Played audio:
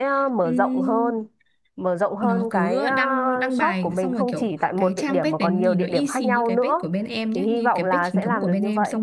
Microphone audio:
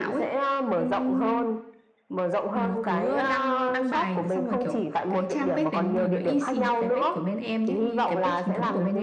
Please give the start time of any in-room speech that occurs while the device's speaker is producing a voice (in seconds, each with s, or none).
none